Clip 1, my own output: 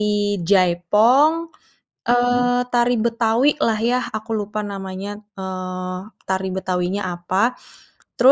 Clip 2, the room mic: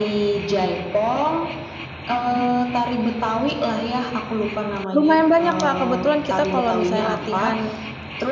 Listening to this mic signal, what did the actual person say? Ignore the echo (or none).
Lumayan banyak, Kak, kebetulan kita kalau misalnya latihan